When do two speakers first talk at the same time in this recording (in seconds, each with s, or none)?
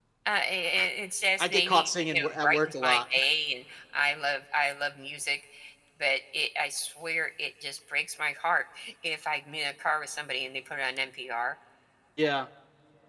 1.4 s